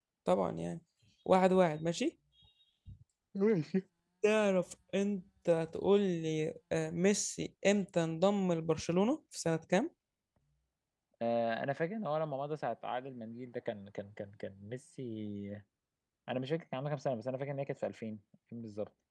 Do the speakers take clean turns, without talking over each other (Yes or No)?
Yes